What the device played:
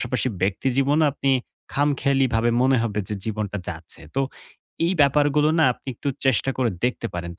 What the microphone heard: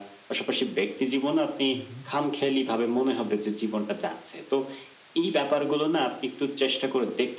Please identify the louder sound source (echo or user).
echo